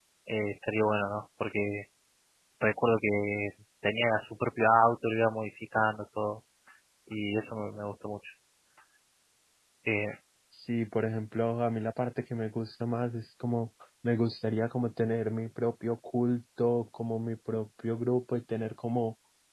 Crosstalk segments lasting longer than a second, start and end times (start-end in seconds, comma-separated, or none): none